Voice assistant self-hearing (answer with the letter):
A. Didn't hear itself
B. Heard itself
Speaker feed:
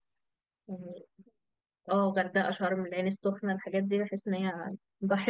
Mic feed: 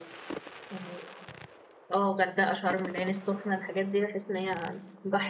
B